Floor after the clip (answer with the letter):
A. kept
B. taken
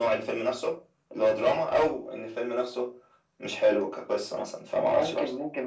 B